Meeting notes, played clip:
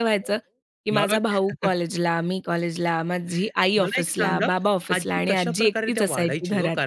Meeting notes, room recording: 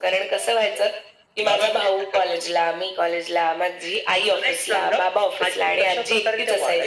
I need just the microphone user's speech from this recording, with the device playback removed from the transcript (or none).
none